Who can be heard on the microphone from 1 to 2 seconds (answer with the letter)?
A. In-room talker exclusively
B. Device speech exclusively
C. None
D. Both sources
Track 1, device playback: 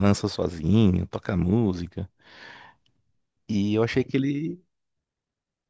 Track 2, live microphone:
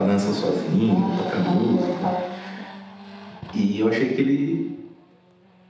D